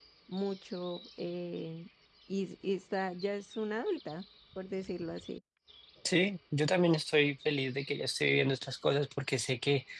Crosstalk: none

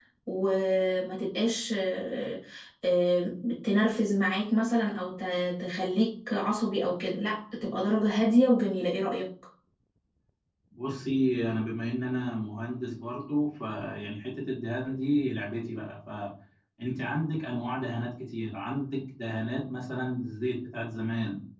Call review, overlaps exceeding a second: none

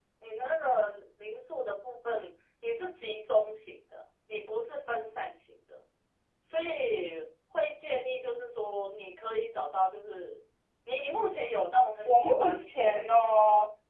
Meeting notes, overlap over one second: present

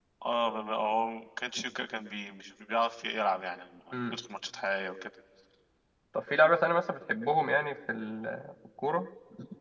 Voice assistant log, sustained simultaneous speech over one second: none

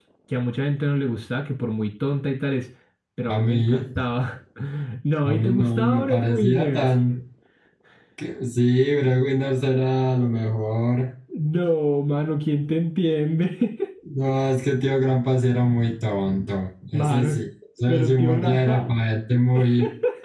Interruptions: present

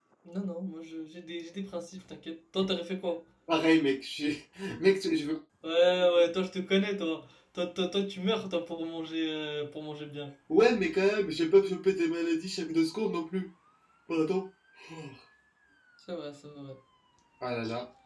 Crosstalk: none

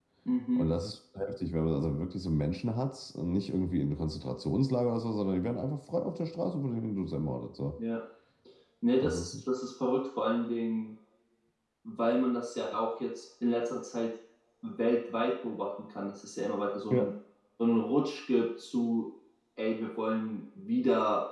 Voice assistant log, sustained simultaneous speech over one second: none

